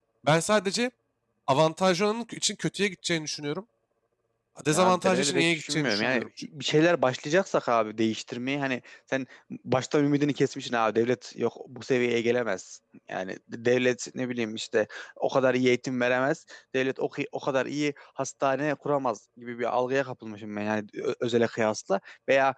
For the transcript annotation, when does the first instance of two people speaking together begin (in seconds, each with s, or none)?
4.7 s